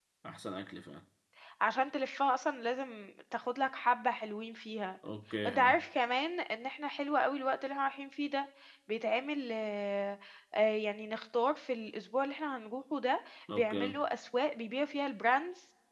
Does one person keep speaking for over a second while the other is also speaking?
No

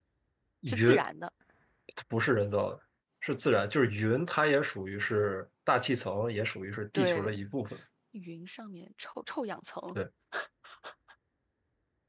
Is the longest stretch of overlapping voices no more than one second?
Yes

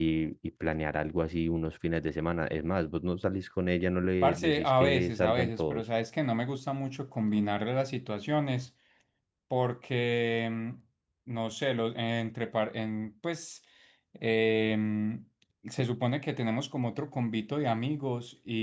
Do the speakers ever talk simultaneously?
Yes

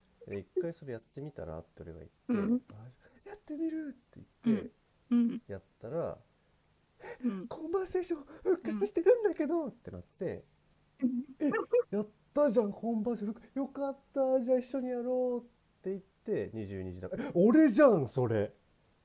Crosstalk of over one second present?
No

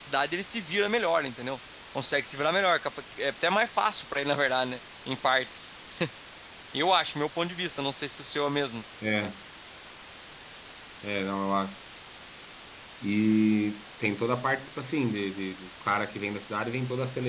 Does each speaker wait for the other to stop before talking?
Yes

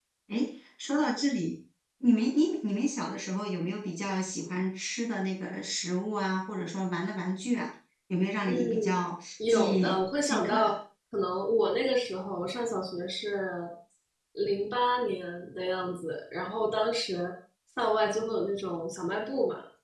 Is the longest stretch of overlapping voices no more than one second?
No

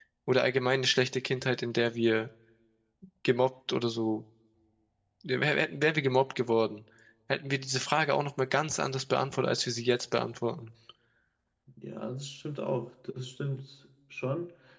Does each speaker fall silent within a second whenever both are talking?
Yes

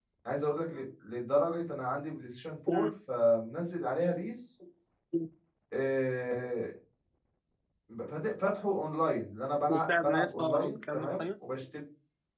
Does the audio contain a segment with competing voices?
Yes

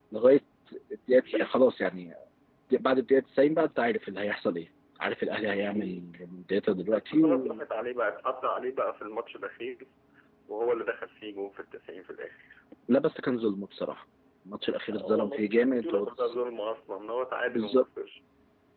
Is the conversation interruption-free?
No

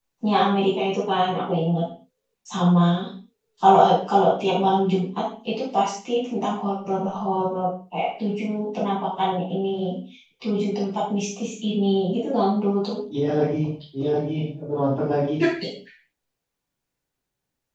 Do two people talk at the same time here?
No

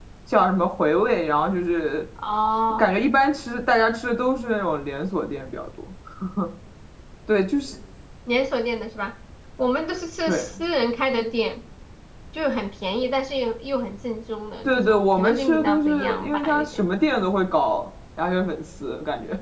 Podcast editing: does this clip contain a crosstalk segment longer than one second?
Yes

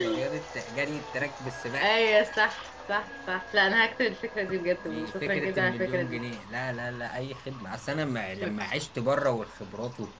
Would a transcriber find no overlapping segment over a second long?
No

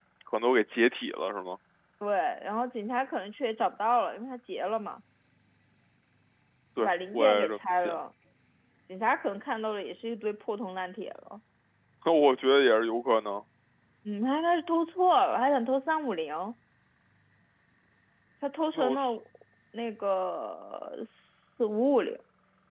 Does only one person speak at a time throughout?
No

